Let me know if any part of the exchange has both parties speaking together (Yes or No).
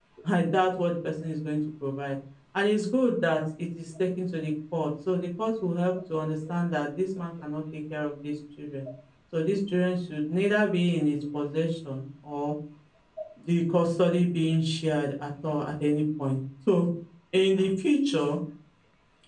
No